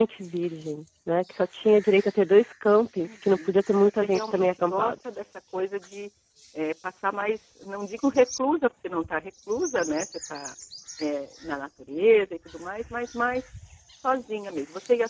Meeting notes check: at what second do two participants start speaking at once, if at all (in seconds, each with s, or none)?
2.8 s